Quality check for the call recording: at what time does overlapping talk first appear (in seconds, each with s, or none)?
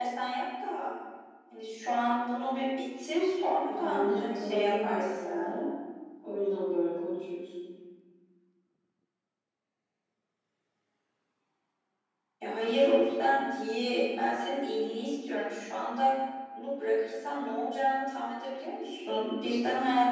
3.7 s